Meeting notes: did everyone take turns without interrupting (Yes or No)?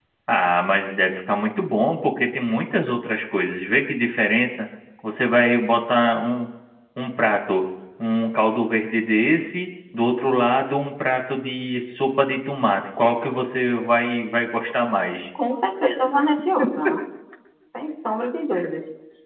Yes